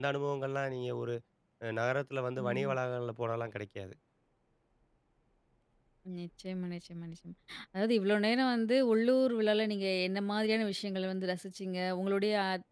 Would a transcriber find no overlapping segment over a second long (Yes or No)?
Yes